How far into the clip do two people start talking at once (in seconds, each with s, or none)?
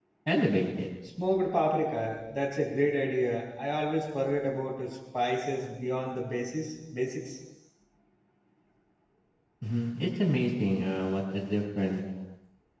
none